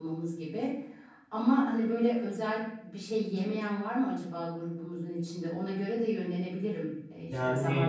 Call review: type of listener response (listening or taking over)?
listening